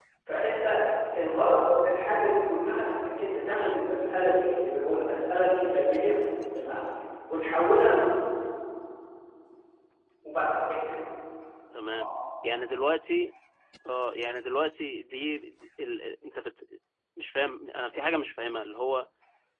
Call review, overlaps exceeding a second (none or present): none